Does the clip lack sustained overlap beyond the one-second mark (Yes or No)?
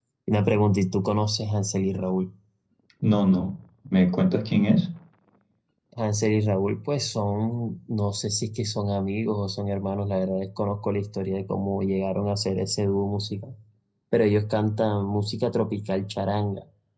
Yes